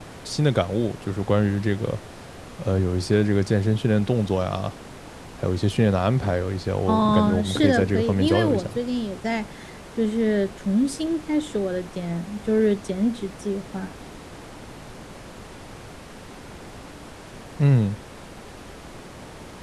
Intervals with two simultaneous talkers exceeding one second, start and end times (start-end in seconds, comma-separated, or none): 6.9-8.7